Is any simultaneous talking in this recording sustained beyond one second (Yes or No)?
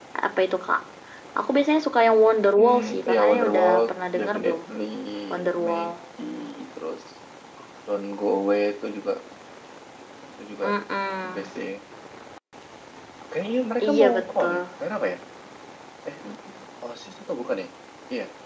Yes